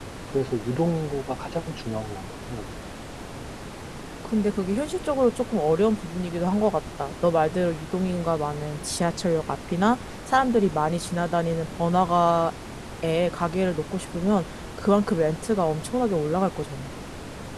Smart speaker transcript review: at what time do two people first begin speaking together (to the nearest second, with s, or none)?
none